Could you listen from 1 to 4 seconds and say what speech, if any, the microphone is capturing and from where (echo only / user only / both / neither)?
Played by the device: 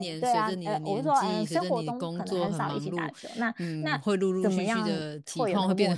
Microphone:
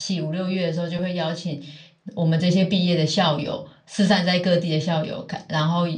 user only